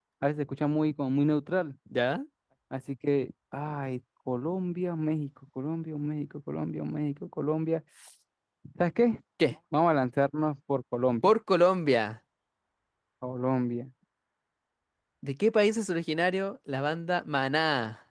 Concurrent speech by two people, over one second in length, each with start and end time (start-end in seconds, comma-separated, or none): none